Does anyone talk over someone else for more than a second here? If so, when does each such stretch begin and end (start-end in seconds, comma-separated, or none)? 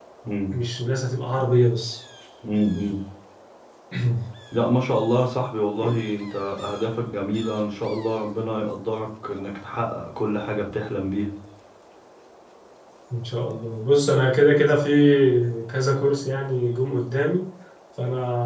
none